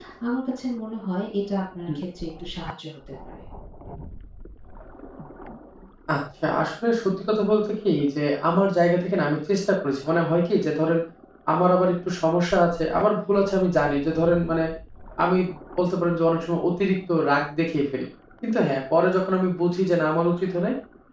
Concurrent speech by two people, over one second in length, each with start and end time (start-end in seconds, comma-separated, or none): none